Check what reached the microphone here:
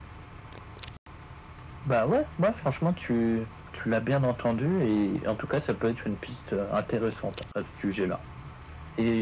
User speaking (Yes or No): No